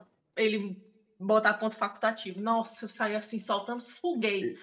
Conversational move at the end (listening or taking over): taking over